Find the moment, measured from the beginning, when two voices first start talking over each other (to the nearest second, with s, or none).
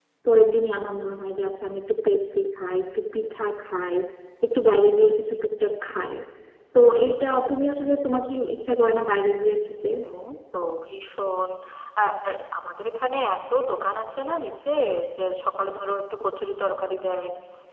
none